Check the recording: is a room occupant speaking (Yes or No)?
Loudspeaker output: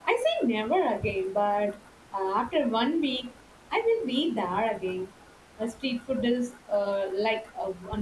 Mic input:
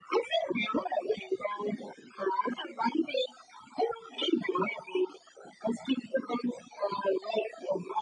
No